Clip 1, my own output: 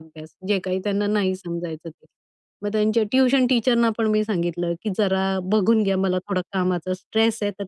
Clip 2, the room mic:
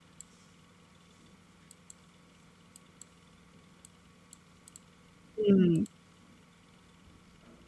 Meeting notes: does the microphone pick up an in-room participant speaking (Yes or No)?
Yes